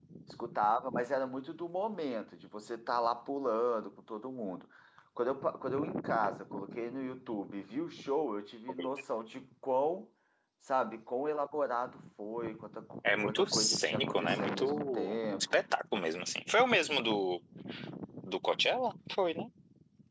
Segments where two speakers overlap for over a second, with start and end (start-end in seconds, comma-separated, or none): 13.2-15.6